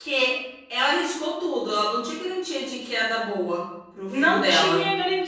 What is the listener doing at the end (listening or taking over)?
taking over